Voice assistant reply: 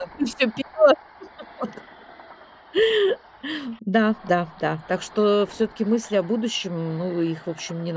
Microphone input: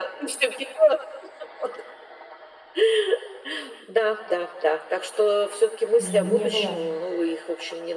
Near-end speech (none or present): present